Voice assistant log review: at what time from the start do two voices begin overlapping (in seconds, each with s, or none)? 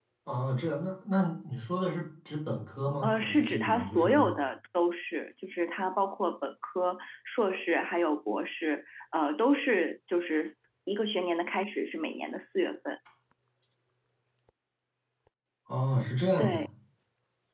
3.0 s